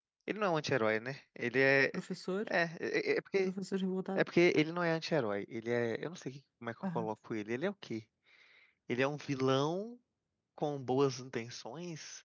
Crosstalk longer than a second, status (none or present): none